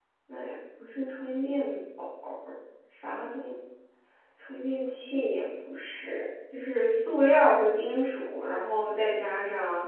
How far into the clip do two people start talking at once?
none

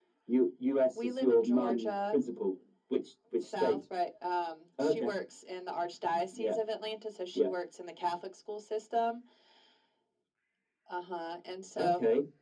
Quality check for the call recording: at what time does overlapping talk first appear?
1.0 s

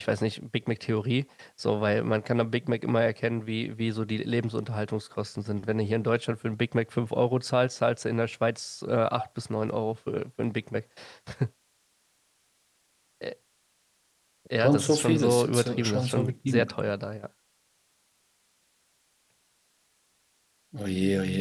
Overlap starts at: 14.6 s

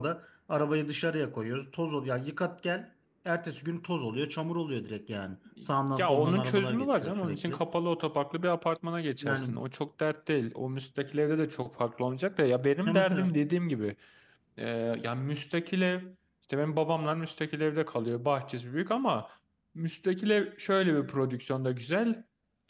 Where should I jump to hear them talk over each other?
6.0 s

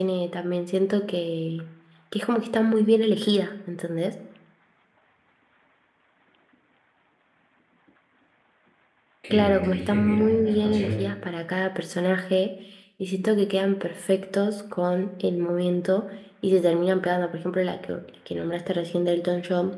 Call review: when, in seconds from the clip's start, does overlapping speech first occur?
9.3 s

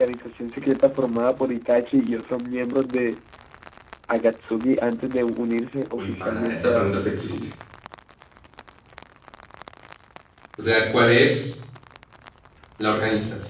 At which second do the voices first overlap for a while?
6.0 s

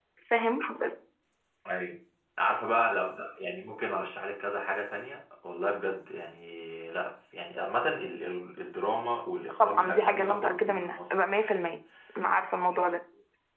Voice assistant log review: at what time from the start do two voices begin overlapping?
9.6 s

